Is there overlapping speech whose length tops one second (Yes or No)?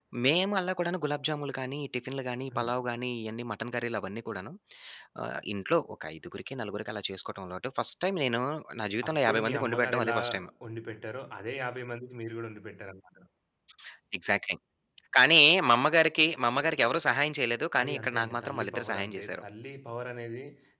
Yes